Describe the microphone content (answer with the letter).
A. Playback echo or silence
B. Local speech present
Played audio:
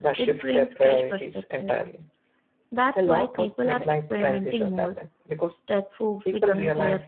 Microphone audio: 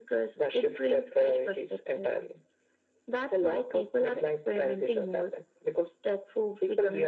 A